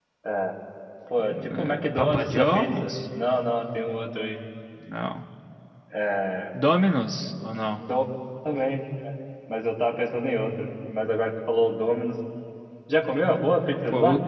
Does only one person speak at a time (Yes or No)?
No